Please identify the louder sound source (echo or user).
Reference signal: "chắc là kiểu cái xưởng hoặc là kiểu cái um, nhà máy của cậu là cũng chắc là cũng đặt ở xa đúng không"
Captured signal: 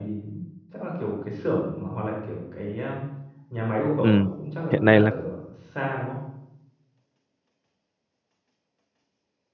user